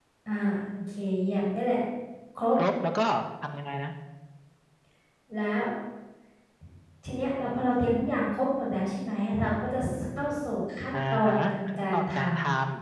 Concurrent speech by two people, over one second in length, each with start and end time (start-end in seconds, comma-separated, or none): 10.9-12.3